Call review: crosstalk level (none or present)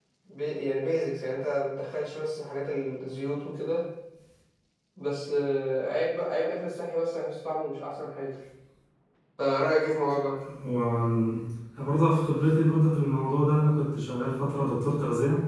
none